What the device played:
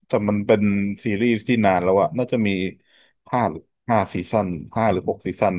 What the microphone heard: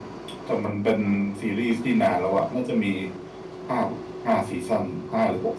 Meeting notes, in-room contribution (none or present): none